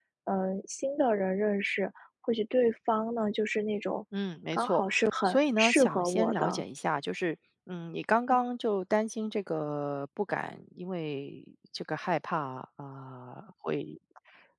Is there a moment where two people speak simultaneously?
Yes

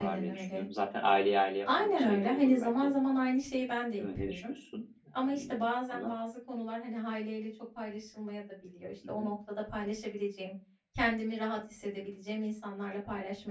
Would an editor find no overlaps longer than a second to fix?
No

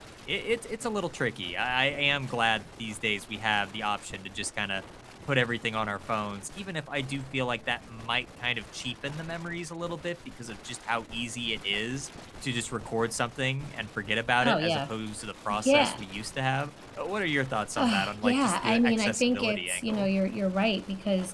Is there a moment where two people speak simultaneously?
Yes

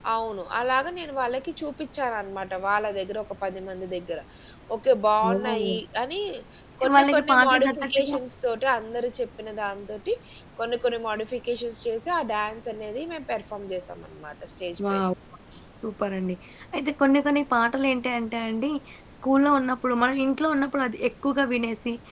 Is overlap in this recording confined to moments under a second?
No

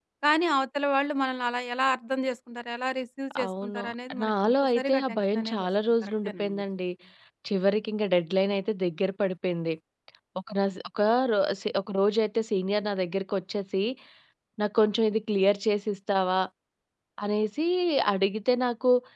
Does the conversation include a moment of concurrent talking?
Yes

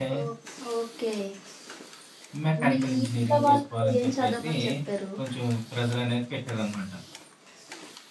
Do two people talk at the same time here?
Yes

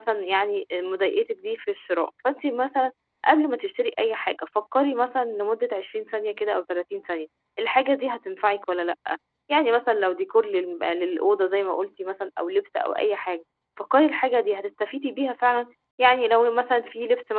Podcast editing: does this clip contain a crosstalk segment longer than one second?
No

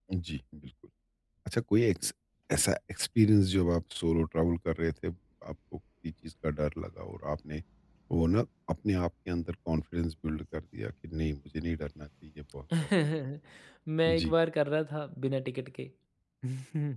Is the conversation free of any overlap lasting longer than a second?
Yes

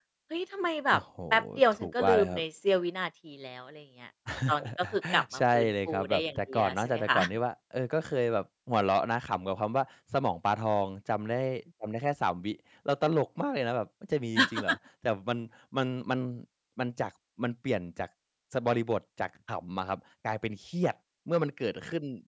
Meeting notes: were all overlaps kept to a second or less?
No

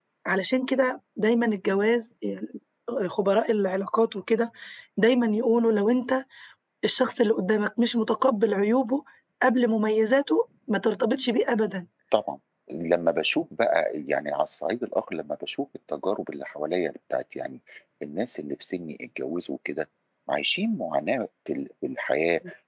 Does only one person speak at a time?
Yes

